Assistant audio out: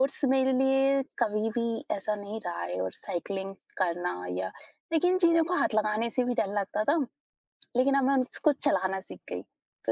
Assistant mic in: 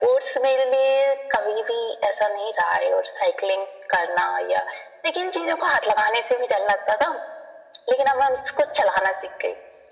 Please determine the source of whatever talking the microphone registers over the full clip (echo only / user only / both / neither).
echo only